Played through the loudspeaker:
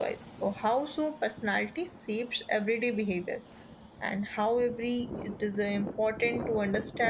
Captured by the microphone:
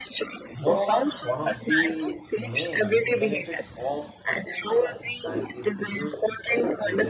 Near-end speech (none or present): present